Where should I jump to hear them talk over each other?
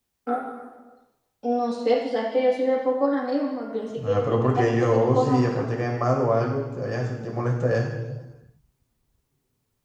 4 s

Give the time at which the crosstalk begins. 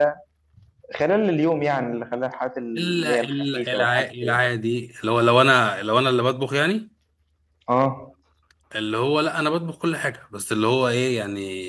3 s

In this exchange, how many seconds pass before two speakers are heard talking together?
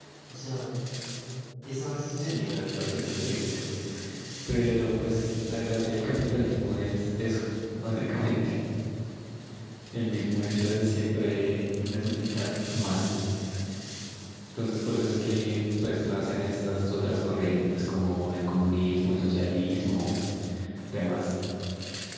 2 s

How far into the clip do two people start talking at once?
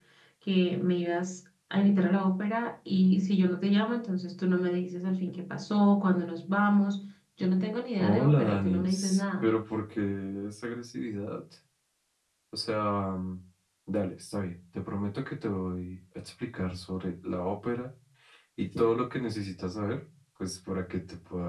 8 s

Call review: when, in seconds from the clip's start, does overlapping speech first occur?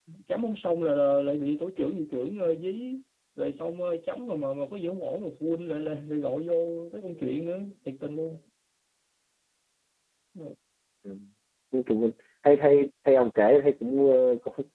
none

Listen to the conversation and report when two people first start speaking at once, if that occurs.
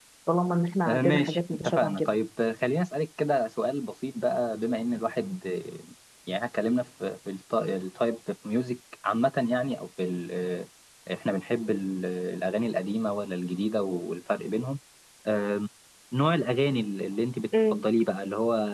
1 s

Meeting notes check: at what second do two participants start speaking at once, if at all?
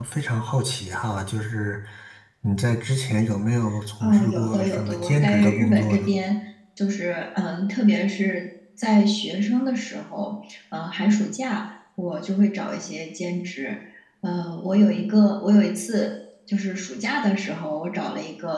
4 s

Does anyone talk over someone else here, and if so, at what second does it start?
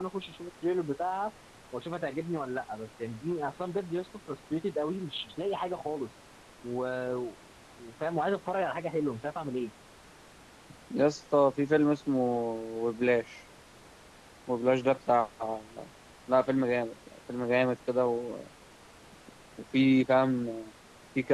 none

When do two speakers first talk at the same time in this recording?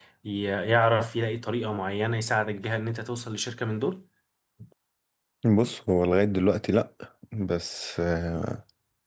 none

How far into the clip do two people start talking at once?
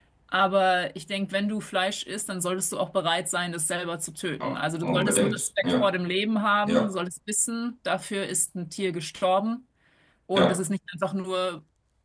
4 s

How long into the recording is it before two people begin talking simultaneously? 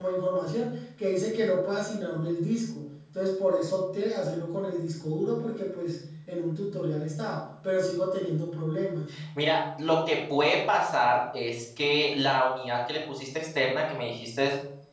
none

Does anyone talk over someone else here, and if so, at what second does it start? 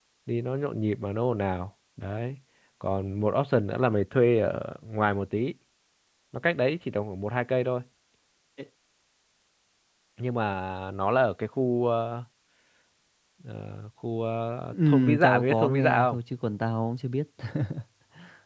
15 s

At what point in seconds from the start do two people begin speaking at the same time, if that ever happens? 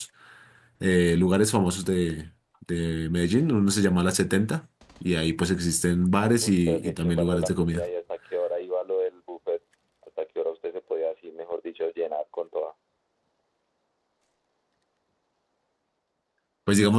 6 s

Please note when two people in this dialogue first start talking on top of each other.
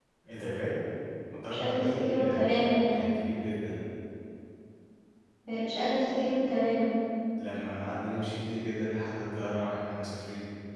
2 s

